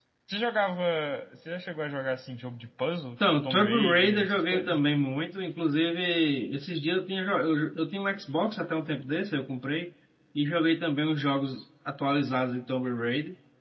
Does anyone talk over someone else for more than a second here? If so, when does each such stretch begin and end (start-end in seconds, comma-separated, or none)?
3.4-4.8